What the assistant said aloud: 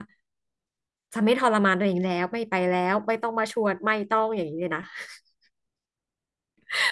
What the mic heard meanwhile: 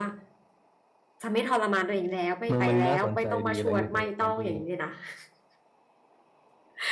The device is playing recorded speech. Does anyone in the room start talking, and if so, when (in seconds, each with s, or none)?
2.5 s